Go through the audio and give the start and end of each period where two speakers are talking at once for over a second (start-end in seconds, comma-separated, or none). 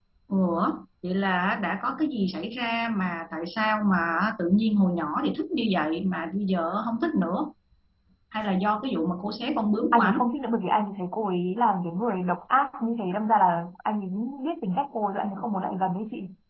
none